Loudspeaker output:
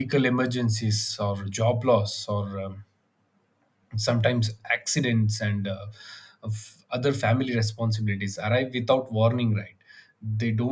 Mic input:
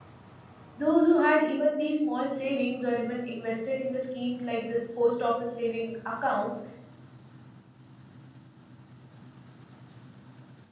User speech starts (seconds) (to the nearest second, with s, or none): 1 s